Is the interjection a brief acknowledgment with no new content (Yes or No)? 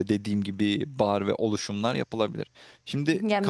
No